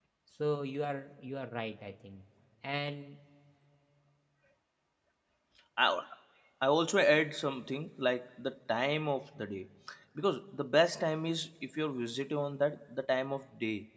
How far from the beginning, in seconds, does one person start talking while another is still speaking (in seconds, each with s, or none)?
none